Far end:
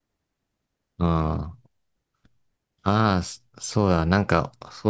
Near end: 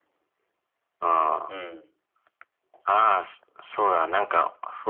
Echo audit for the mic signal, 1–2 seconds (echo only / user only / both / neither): both